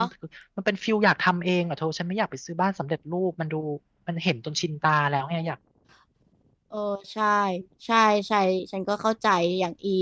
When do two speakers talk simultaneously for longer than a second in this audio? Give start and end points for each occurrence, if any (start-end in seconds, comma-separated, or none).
none